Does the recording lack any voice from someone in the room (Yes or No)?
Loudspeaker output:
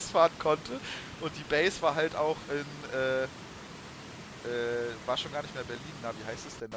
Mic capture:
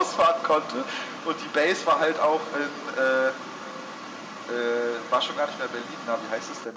Yes